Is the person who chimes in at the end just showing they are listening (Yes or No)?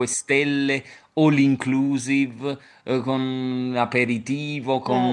Yes